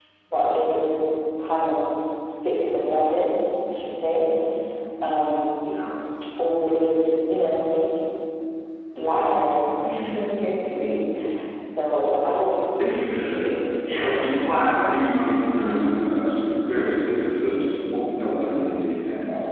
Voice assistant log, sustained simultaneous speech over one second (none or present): none